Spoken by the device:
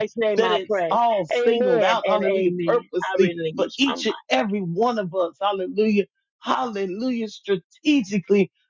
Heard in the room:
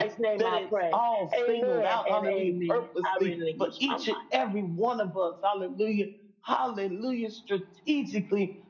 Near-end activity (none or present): none